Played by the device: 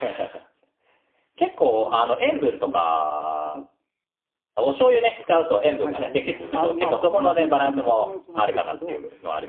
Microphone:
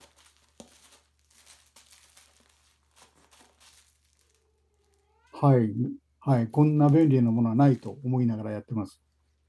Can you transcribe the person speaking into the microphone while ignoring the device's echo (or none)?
はい。はい。こんな便利なものはないと思いながらやってます。